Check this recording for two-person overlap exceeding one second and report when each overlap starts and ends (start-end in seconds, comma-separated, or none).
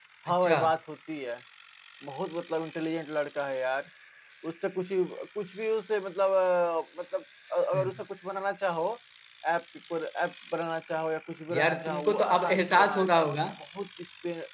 11.5-13.4